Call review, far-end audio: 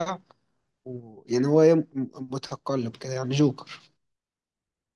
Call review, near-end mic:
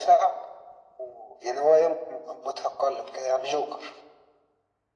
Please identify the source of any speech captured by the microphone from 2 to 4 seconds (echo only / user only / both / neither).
echo only